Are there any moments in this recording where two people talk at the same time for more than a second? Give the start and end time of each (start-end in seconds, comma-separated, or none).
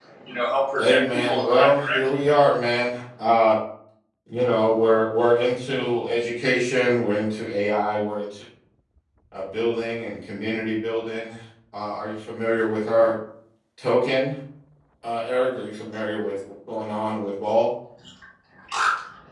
0.8-2.2